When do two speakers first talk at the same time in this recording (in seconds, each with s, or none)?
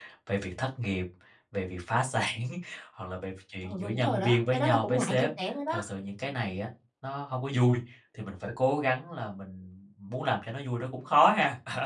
3.6 s